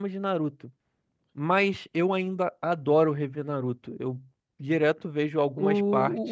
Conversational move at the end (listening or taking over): taking over